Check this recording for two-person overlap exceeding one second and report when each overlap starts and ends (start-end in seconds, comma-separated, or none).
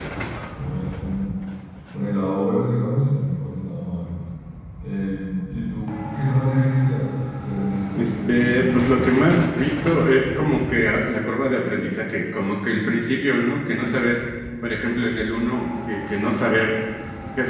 8.0-9.2